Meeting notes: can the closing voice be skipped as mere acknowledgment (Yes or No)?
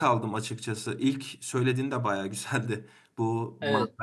Yes